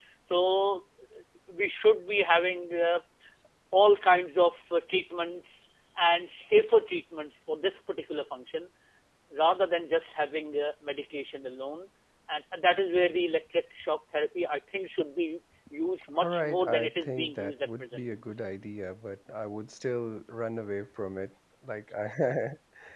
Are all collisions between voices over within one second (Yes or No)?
No